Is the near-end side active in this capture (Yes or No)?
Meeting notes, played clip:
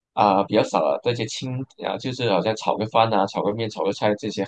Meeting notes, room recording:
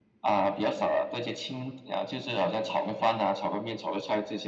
No